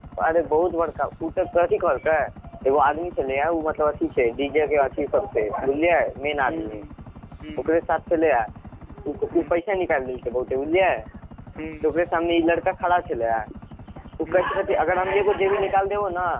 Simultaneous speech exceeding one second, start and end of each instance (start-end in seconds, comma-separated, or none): none